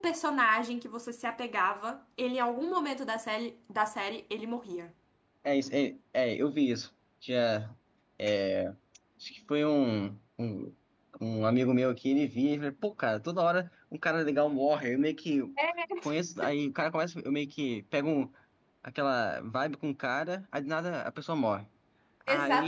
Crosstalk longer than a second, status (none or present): none